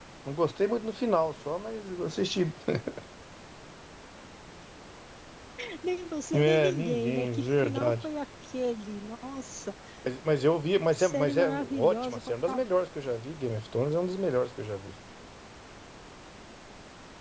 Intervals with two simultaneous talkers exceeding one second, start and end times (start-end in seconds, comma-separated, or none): 6.3-8.1, 10.9-12.6